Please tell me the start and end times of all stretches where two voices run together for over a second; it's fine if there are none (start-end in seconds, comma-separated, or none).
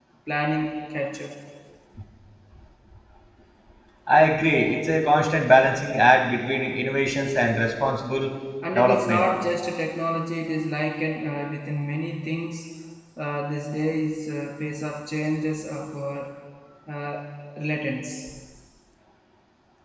none